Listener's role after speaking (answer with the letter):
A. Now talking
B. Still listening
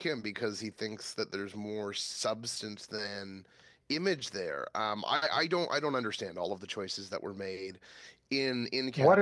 A